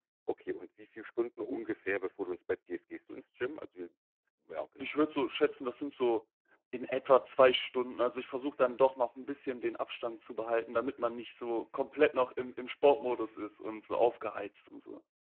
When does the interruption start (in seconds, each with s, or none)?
none